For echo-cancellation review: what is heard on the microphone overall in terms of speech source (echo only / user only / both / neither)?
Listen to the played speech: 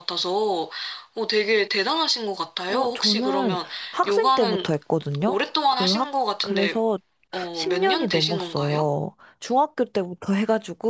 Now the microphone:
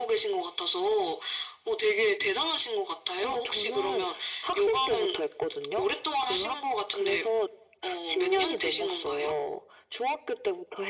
echo only